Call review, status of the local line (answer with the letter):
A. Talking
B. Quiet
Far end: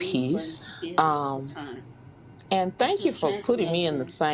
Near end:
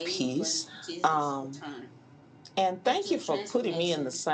B